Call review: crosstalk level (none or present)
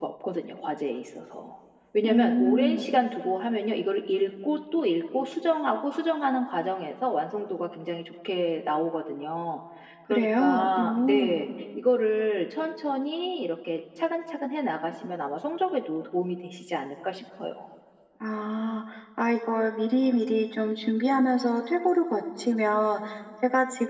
present